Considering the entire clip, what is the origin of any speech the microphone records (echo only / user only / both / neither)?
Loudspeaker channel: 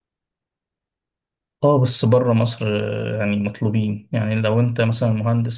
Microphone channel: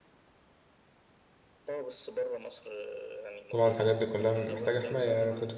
both